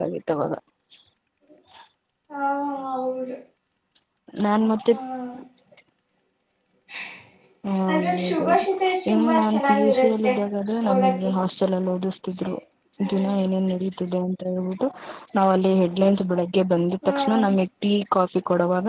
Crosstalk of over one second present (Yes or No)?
Yes